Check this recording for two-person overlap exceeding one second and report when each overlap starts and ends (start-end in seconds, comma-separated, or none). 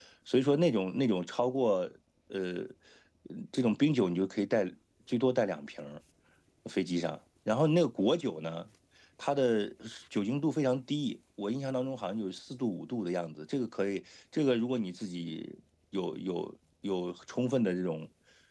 none